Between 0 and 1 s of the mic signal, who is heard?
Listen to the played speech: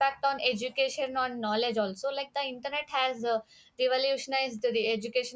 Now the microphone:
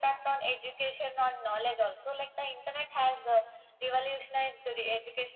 echo only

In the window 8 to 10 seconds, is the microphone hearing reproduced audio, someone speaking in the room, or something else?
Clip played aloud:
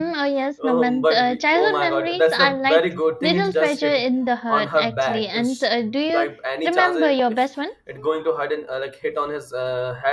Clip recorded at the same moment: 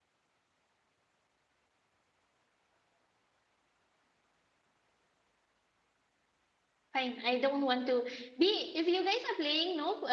user only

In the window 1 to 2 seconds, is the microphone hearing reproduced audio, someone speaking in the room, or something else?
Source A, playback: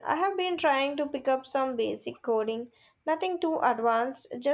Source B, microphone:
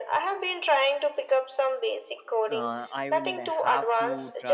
echo only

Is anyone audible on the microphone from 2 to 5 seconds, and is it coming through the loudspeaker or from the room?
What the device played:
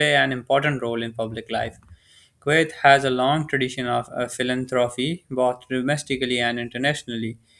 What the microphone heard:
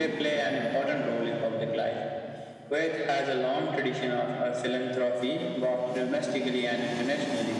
echo only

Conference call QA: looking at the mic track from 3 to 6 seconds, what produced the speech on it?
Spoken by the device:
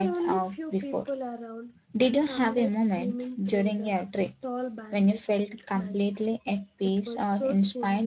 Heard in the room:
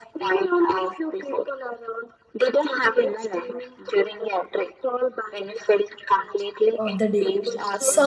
echo only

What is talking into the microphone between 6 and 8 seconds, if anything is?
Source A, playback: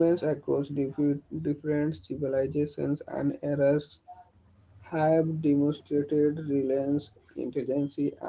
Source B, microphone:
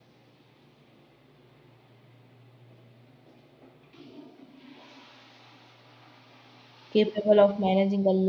user only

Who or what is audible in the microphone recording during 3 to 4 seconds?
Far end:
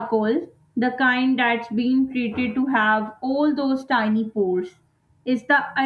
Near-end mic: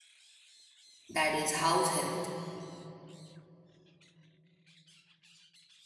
neither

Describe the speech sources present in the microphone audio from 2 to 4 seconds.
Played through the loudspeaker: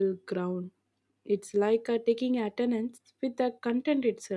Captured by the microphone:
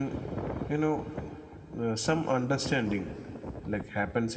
user only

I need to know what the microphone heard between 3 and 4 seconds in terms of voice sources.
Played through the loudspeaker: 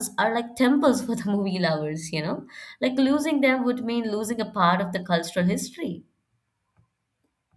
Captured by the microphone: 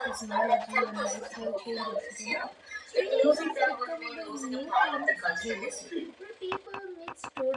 both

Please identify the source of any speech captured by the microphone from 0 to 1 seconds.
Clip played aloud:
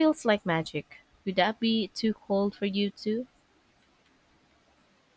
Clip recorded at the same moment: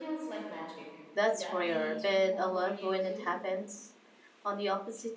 echo only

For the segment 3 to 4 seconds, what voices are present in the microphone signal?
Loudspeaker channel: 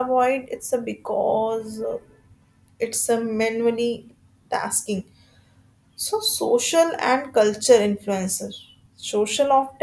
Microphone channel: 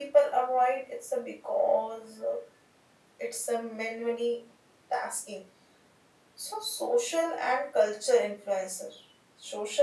echo only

